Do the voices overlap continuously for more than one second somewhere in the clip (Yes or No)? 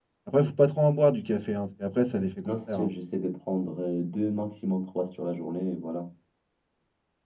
No